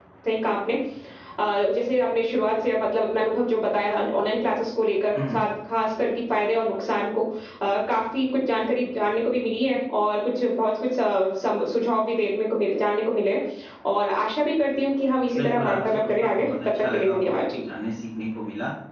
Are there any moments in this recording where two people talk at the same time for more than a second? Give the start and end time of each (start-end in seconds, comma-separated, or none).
15.4-17.6